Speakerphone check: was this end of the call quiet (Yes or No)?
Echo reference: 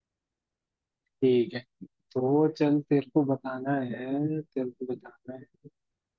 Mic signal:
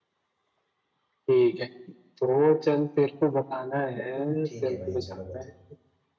No